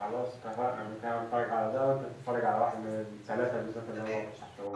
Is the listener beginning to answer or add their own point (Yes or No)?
Yes